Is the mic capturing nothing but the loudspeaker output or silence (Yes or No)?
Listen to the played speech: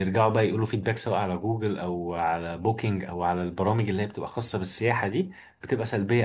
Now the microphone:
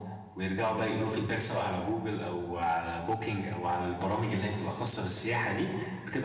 Yes